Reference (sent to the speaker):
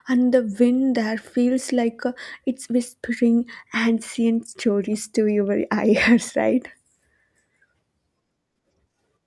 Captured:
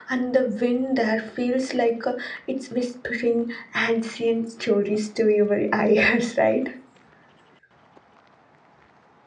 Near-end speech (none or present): none